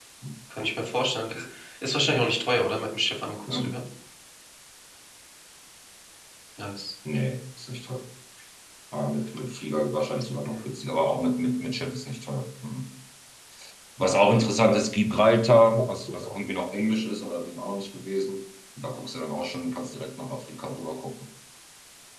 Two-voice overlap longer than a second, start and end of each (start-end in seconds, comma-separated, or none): none